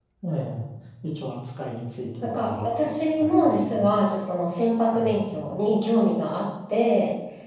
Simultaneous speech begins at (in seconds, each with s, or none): 2.2 s